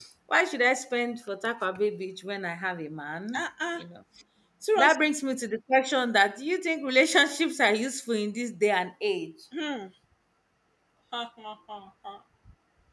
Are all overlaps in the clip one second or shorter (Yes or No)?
Yes